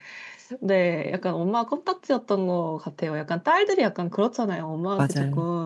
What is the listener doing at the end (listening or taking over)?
listening